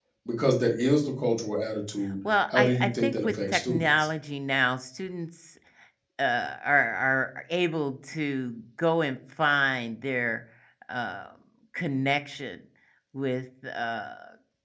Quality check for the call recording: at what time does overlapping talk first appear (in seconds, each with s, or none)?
2.5 s